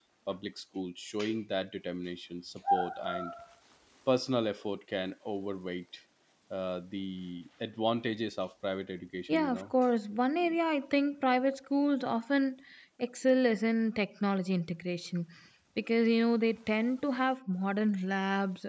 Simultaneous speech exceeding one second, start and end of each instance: none

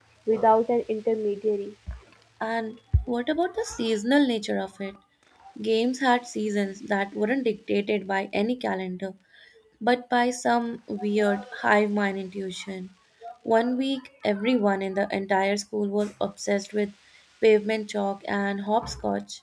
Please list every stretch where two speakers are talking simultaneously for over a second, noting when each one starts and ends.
none

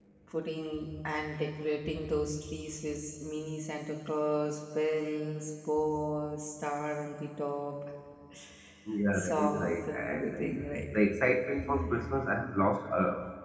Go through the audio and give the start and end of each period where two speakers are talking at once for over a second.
9.1-10.4

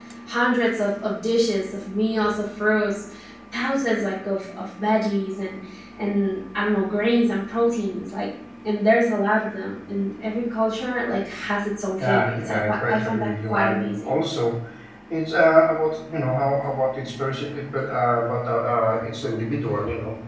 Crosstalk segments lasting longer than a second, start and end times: 12.0-14.2

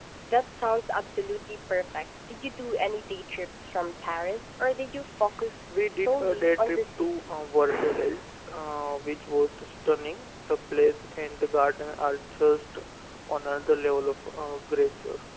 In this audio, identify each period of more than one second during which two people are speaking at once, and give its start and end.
5.9-7.2

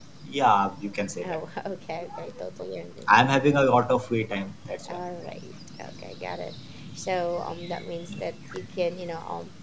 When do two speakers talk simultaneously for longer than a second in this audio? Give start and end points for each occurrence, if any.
none

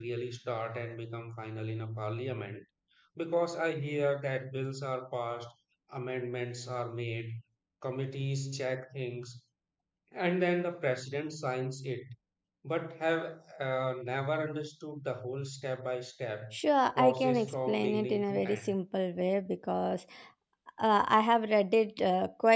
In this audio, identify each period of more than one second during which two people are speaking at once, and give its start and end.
17.0-18.7

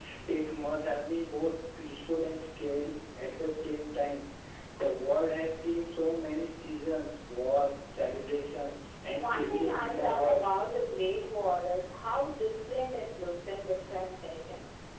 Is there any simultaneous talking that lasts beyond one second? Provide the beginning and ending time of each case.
9.1-10.5

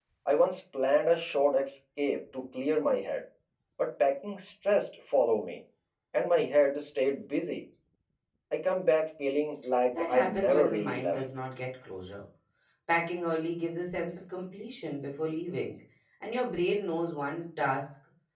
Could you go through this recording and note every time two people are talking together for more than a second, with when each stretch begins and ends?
10.0-11.2

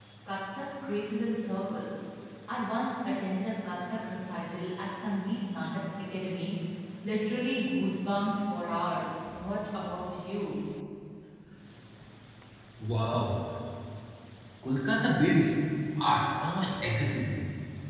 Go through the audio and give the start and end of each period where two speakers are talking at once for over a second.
none

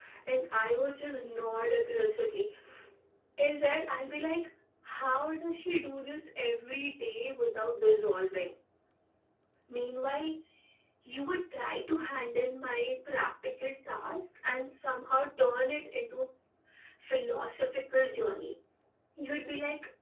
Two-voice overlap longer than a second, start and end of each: none

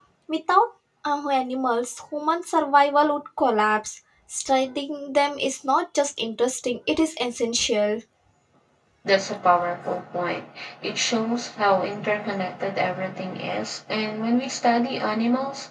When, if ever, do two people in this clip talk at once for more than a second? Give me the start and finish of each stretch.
none

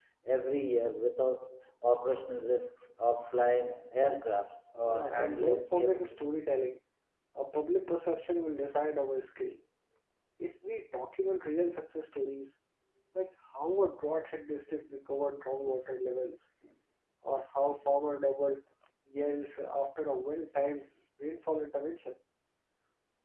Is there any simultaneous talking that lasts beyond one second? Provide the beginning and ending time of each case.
4.8-6.2

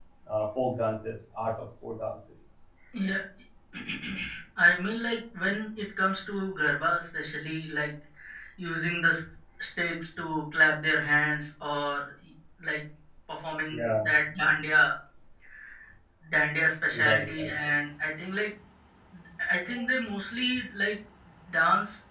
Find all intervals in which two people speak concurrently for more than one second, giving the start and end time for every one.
none

